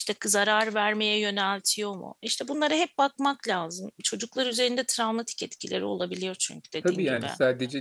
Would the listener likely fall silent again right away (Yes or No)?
No